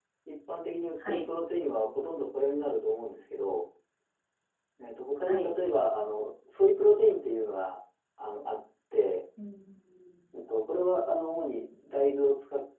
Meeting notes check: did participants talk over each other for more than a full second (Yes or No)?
No